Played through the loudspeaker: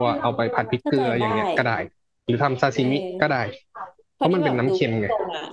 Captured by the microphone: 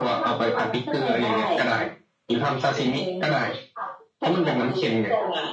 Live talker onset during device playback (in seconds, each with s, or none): none